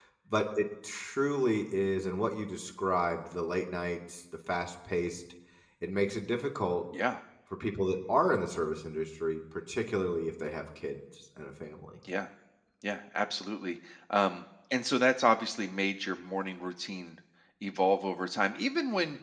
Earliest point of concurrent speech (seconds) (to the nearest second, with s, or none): none